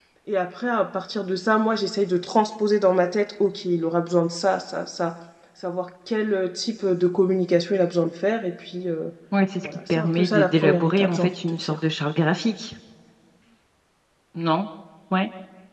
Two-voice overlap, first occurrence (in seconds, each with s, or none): 9.6 s